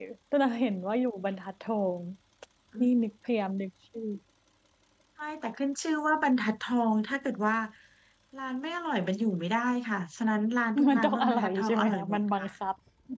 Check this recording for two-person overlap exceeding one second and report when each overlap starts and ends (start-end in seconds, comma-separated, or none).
10.9-12.5